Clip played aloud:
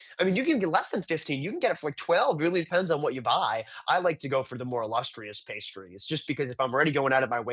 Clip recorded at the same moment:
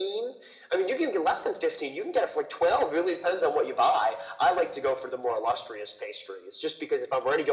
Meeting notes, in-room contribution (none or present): none